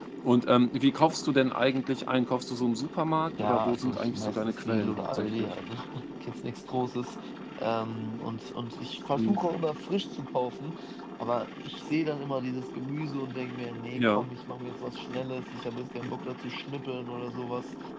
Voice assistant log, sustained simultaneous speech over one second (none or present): present